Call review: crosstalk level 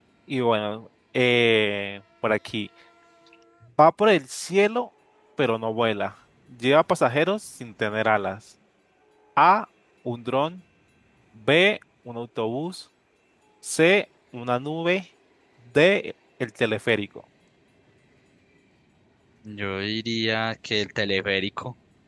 none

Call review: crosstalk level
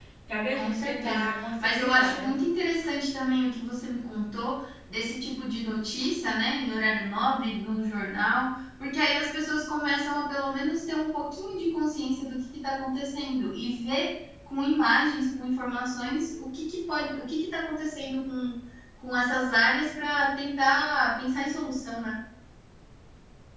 present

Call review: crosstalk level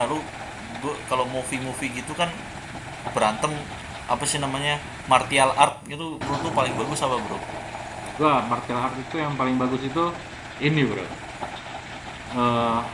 none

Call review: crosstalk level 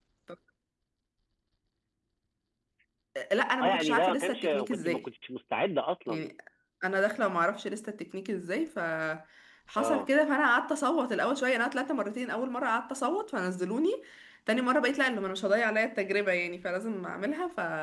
present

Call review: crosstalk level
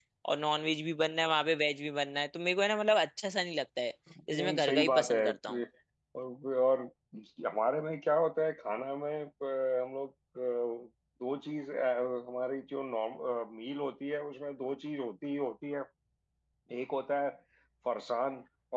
present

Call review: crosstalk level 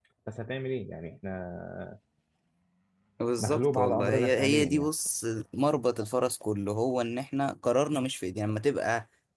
present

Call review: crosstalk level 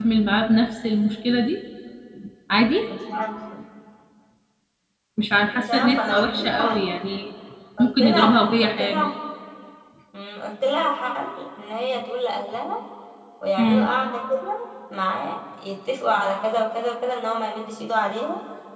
present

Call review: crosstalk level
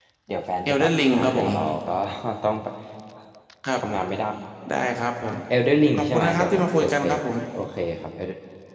present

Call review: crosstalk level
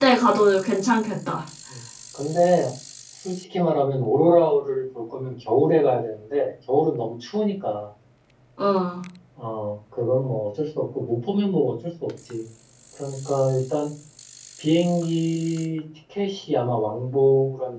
none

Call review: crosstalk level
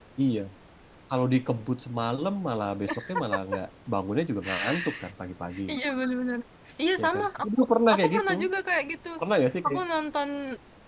present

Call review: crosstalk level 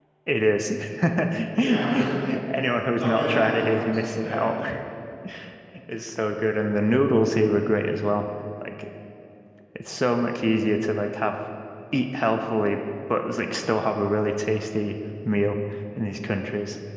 present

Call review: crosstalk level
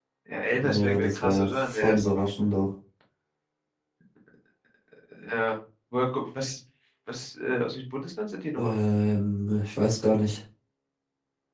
present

